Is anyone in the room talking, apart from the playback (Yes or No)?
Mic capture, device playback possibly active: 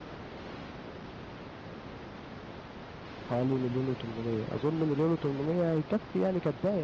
Yes